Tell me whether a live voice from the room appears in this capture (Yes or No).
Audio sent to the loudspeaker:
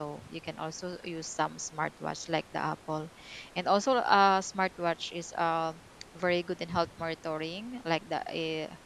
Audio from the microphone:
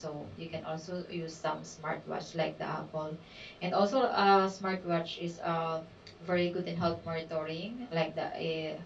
No